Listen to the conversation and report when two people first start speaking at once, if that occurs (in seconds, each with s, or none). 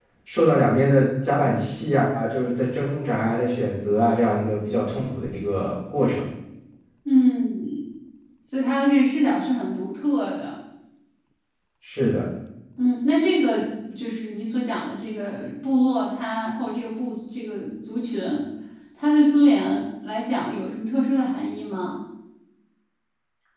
none